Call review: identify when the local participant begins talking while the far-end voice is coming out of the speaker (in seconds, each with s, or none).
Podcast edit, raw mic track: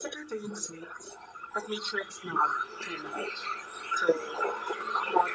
none